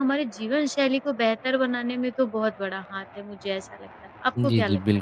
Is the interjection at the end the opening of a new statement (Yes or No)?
Yes